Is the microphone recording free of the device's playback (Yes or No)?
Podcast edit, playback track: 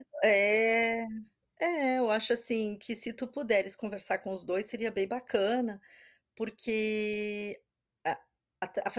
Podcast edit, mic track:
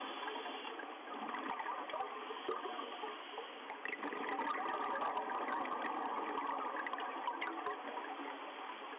Yes